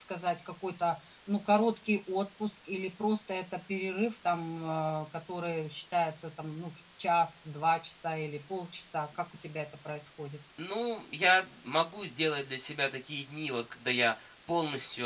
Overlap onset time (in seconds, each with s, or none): none